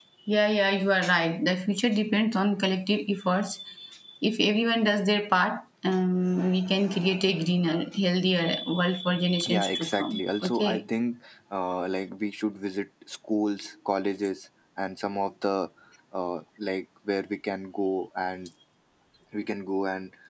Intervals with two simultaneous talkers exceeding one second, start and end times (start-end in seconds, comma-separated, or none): 9.5-10.8